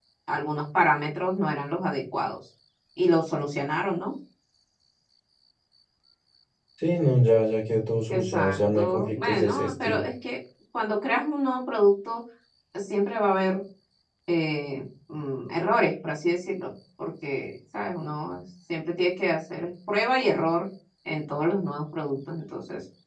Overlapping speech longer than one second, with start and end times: 8.1-10.1

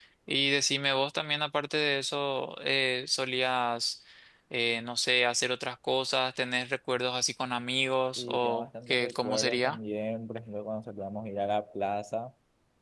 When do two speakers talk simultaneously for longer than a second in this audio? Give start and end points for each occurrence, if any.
8.2-9.8

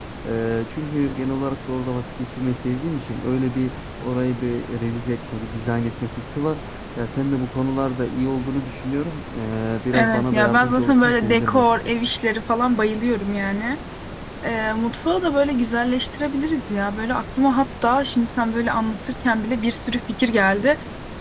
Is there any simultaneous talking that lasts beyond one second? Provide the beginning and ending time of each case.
9.9-11.9

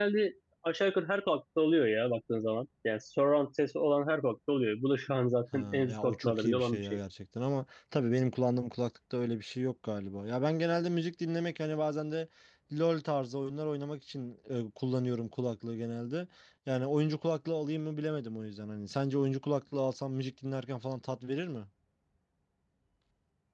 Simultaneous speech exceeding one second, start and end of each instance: 5.5-7.0

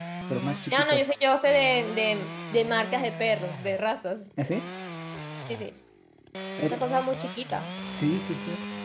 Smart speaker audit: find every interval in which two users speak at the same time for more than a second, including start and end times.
none

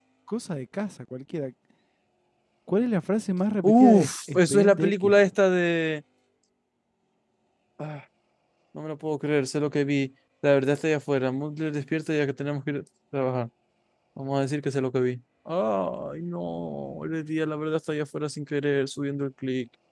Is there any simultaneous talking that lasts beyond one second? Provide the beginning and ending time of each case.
3.6-5.1

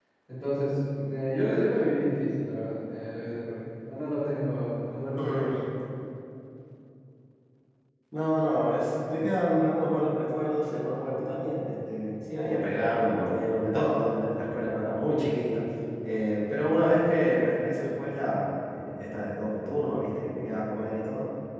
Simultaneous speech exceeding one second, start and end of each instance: none

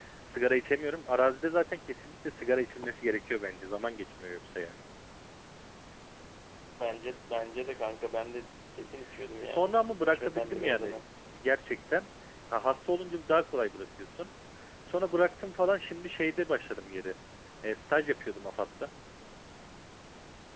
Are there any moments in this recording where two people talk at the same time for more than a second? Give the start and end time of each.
9.4-11.0

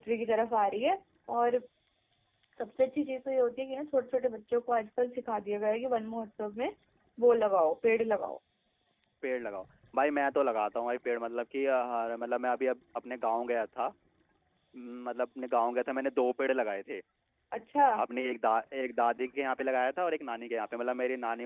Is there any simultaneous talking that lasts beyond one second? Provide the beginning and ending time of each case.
none

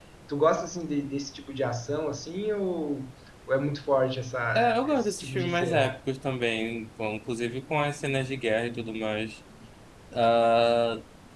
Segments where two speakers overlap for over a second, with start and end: 4.5-5.9

